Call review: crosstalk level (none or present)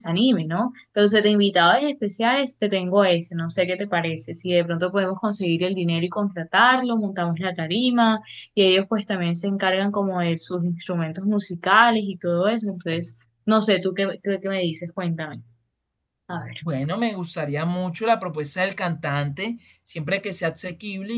none